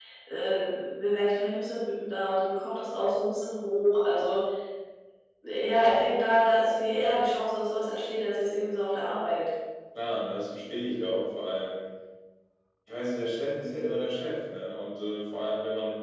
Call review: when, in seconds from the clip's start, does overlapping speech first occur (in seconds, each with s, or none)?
none